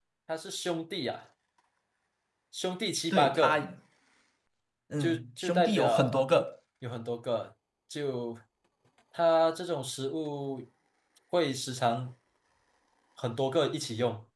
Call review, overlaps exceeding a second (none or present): present